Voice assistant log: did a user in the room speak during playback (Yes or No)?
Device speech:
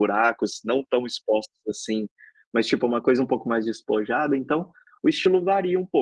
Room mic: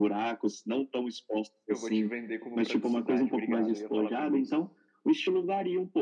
Yes